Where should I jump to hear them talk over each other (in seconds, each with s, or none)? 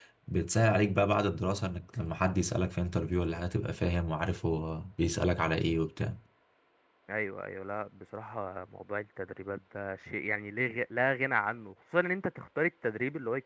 none